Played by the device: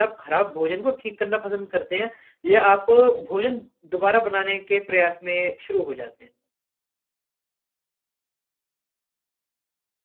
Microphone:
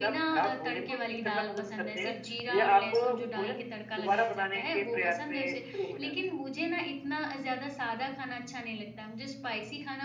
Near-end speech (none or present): present